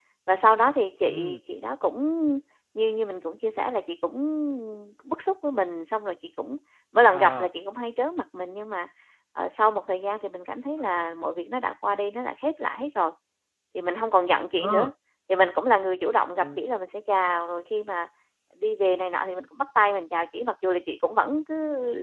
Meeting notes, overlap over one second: none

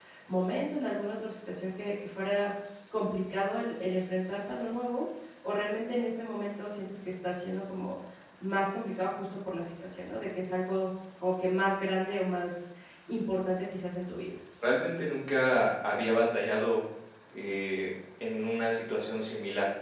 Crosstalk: none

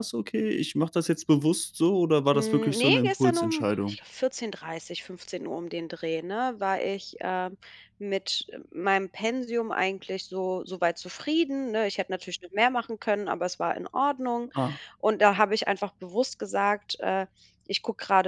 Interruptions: present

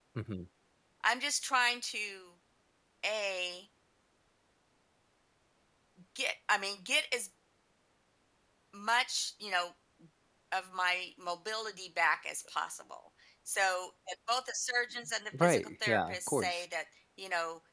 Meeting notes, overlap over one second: present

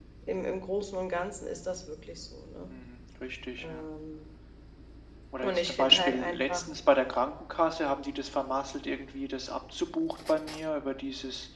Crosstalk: present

